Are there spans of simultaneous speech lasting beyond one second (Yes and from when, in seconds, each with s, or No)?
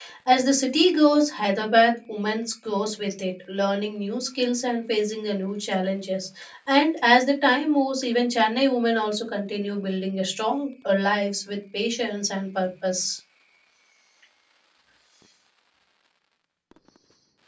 No